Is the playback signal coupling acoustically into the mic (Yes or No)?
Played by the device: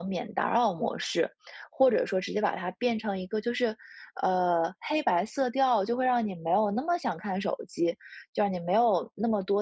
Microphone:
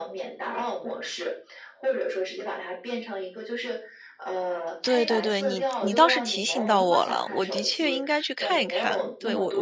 Yes